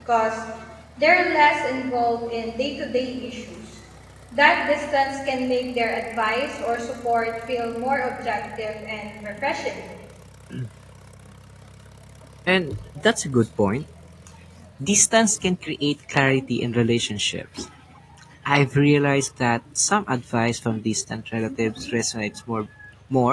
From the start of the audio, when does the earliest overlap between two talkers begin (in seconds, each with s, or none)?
none